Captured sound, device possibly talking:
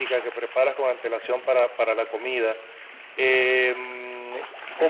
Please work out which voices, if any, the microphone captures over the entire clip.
echo only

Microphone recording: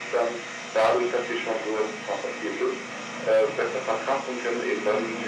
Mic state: echo only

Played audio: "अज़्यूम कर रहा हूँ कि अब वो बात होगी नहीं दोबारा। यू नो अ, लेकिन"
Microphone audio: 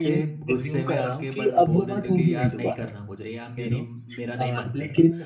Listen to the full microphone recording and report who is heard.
both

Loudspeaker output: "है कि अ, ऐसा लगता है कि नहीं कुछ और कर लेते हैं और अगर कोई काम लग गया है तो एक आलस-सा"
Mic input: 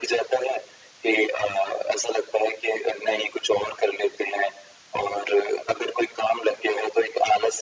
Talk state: echo only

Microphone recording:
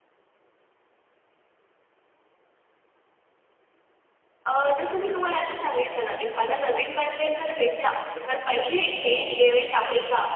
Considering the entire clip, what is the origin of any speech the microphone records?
both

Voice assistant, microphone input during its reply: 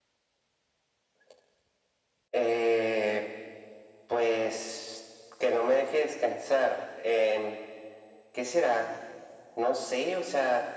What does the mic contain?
echo only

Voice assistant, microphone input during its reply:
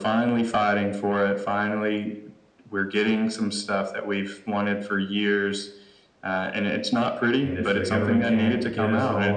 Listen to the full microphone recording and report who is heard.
both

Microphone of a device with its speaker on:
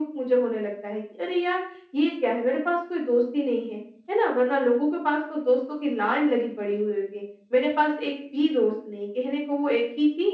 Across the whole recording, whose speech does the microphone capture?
echo only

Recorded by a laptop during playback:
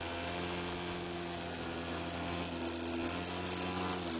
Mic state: neither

